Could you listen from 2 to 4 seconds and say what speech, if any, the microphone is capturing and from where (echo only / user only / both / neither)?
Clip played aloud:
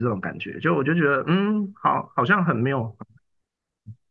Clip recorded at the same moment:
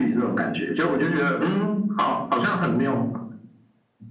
echo only